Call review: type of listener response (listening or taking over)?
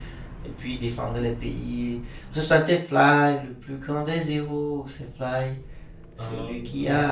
listening